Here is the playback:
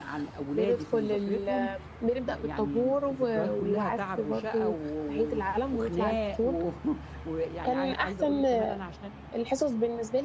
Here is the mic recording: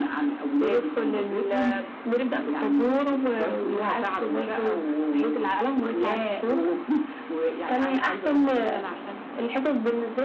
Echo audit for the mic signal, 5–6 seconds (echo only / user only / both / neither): echo only